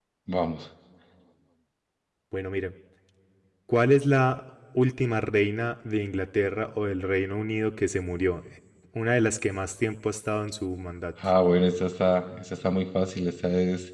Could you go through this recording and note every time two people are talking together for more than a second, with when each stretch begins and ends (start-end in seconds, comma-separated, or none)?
none